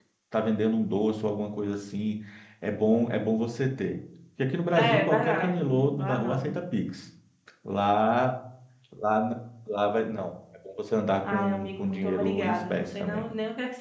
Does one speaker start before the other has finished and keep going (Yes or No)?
Yes